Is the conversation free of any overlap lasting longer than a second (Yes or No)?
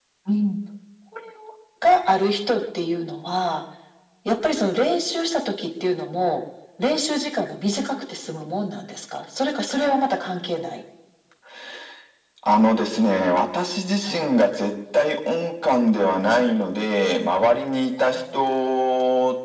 Yes